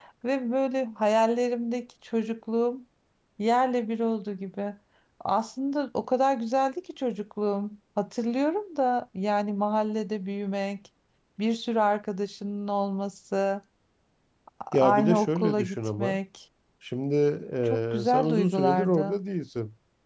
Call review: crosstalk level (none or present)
present